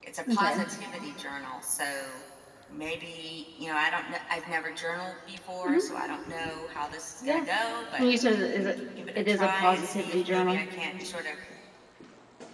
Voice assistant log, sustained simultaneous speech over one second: present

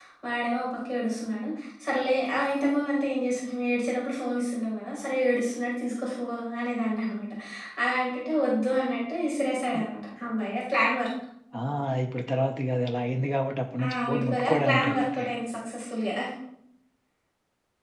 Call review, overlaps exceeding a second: present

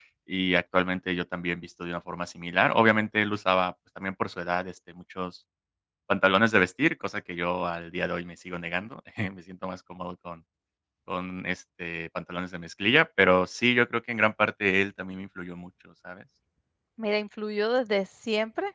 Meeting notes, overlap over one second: none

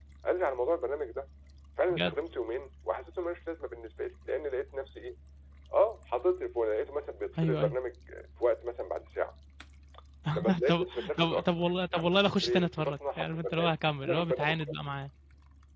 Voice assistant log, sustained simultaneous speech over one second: present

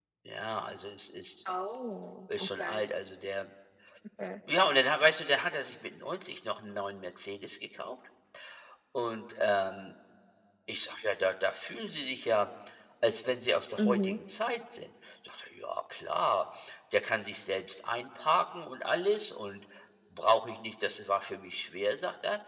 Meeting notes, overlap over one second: none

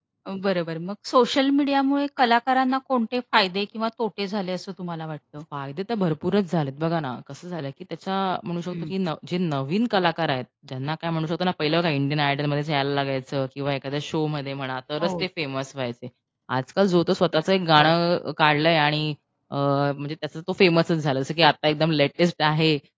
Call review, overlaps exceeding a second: none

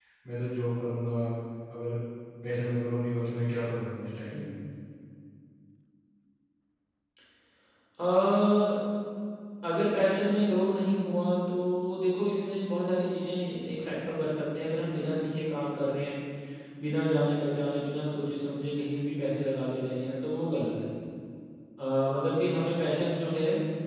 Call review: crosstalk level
none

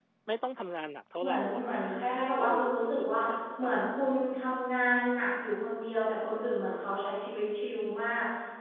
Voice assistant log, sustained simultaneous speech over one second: present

